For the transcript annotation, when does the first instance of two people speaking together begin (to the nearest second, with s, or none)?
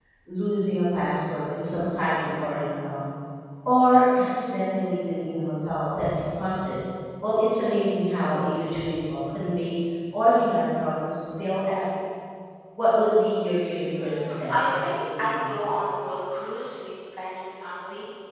14 s